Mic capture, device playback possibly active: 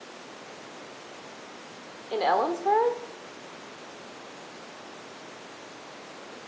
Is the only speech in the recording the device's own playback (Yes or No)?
No